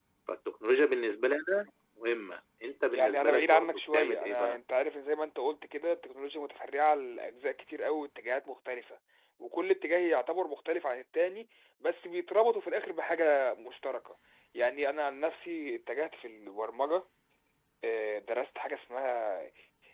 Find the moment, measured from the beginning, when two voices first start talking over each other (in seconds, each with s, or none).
2.9 s